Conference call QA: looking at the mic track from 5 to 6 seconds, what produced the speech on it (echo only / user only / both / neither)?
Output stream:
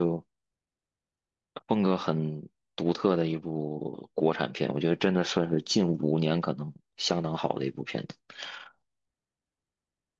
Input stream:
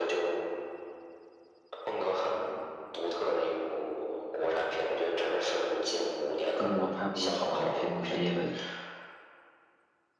echo only